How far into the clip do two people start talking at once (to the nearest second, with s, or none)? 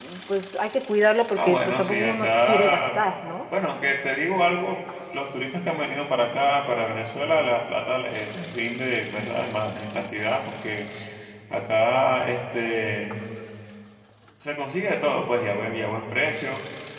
1 s